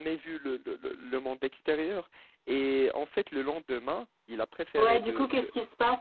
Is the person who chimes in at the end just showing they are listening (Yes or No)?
No